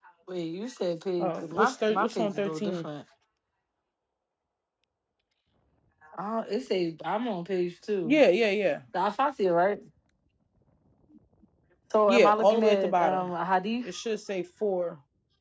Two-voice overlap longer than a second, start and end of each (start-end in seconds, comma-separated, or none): 1.2-2.9, 12.1-13.3